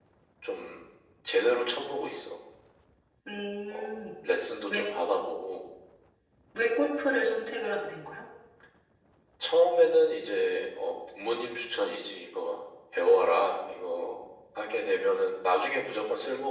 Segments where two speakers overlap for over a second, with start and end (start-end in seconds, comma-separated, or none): none